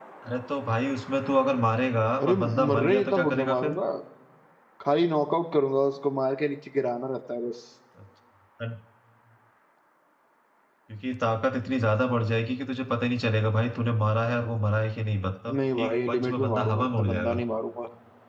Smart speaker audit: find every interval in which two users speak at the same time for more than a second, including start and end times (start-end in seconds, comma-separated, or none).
2.2-3.7, 15.6-17.4